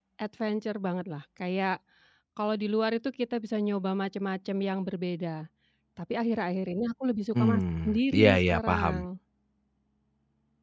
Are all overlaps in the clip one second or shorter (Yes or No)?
No